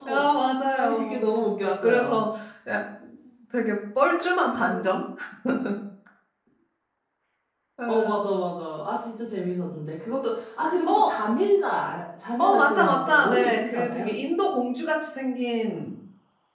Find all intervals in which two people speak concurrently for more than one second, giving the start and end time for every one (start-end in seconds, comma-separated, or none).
0.8-2.2, 12.4-14.1